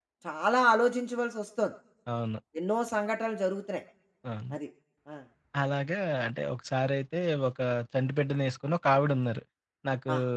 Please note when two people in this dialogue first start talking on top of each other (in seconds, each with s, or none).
none